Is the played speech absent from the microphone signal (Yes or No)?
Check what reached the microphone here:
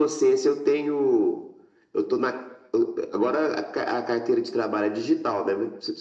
No